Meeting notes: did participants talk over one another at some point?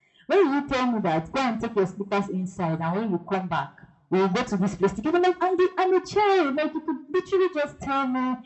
No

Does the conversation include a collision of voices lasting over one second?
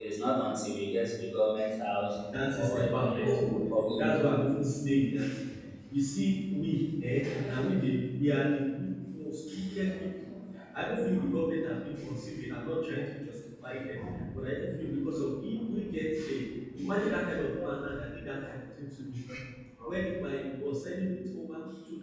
Yes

